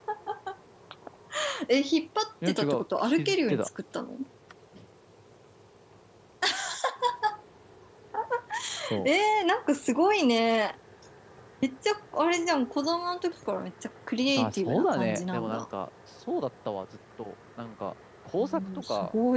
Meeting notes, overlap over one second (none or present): present